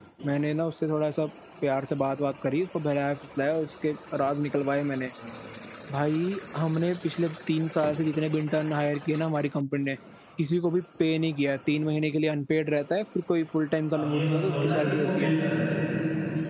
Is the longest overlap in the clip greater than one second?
Yes, from 13.9 s

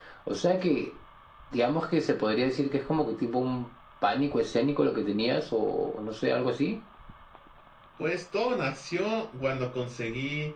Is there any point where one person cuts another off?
No

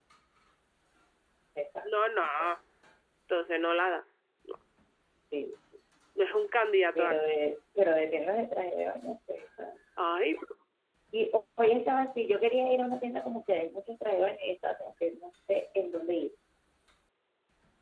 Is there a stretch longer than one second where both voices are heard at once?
No

